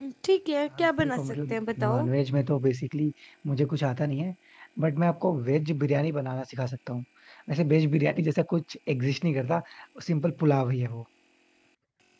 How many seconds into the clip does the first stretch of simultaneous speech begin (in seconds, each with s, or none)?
0.8 s